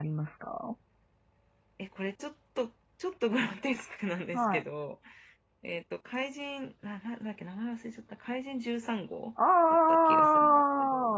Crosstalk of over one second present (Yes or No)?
Yes